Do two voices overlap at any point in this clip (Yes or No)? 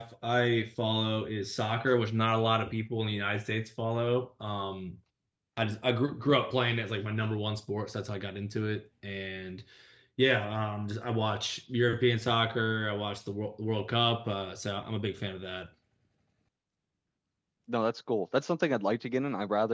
No